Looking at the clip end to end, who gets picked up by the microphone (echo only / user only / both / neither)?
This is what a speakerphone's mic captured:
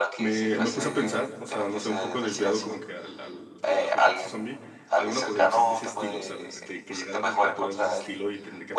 both